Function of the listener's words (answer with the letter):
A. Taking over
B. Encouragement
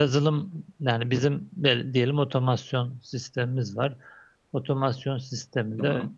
B